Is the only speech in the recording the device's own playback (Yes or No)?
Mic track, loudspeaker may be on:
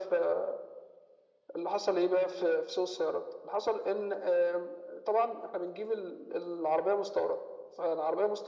Yes